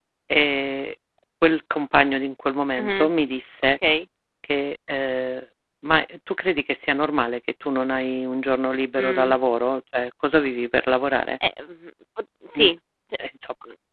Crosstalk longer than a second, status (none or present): none